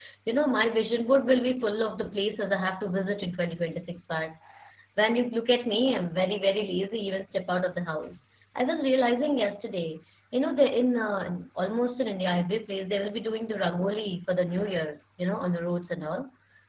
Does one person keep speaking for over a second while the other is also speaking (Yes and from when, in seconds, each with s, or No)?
No